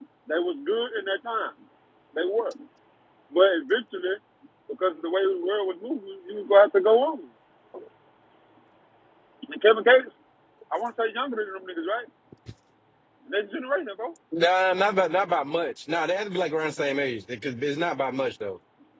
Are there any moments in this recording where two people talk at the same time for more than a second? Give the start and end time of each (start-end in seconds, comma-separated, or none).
none